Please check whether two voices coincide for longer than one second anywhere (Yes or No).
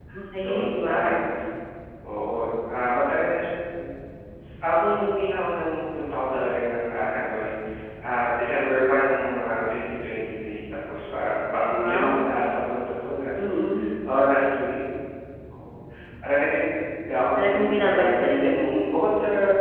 Yes